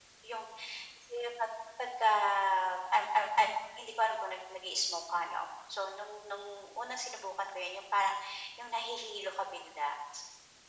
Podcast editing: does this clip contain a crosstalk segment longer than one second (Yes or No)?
No